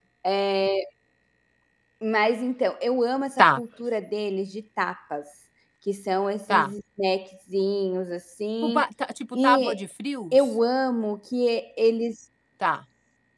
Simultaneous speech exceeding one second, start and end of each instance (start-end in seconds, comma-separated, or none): none